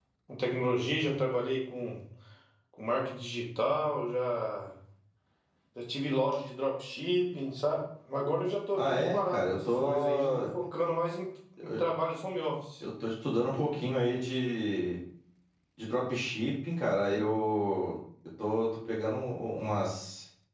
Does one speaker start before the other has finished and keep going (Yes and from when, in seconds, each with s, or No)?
Yes, from 8.7 s